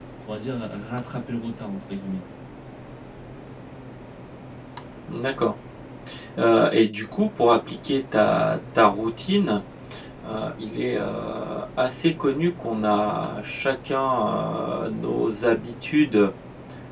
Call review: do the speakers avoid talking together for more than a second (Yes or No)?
Yes